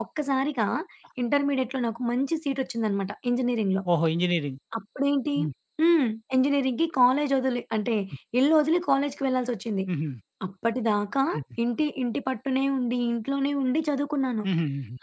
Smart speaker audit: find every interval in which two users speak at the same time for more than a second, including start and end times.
none

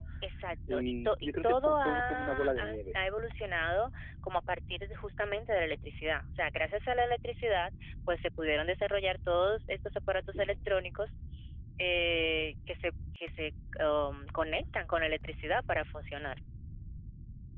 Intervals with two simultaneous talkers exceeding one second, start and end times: 0.7-3.0

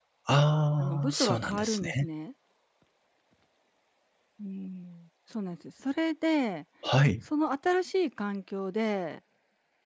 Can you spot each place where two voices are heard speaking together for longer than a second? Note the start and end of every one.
0.8-2.0

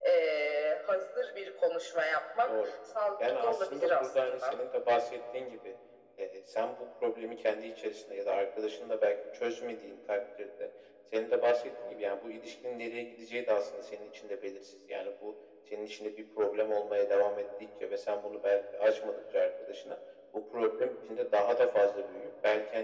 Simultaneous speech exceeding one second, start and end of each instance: 3.3-4.5

